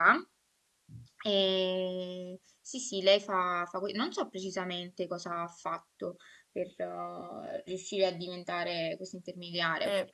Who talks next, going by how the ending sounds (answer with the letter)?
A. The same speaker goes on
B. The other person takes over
B